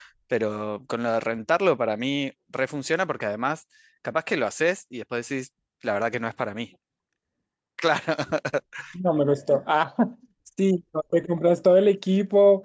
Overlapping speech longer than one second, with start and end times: none

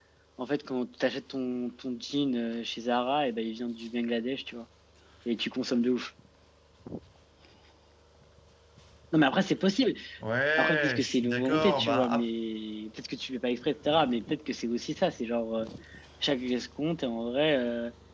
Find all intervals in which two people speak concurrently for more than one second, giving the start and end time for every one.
10.6-12.2

